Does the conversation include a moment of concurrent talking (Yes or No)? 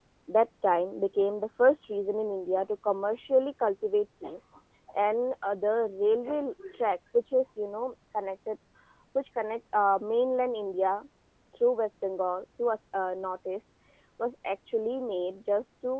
No